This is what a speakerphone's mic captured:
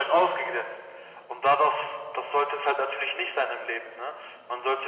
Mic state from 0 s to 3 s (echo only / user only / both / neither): echo only